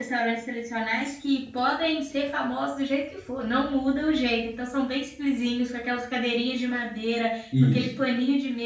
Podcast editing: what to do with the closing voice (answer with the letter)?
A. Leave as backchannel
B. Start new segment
A